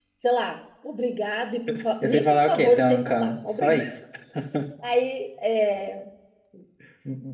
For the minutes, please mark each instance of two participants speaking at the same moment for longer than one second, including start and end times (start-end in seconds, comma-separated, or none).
2.0-3.8